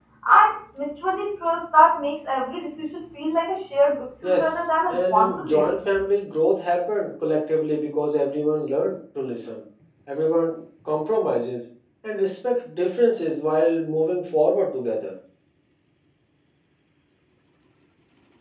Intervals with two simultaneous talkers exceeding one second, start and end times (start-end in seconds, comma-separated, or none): 4.2-5.8